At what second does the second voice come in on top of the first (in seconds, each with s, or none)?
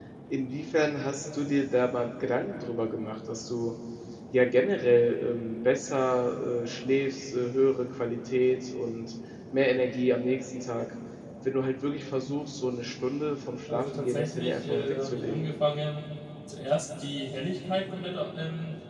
13.7 s